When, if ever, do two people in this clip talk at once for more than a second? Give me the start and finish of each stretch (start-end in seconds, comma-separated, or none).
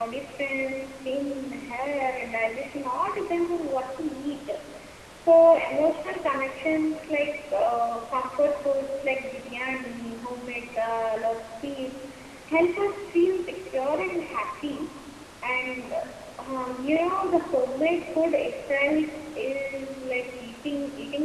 none